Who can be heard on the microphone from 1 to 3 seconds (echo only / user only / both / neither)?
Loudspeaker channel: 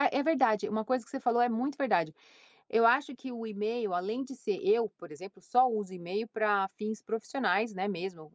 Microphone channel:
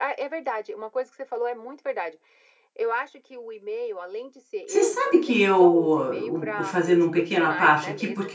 echo only